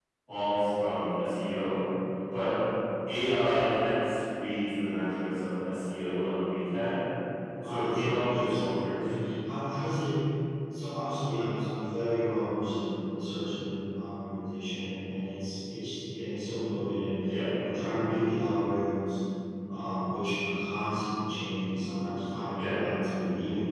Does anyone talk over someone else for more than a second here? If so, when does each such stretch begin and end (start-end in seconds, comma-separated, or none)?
7.6-8.9